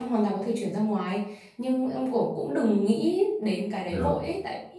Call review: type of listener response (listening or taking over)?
listening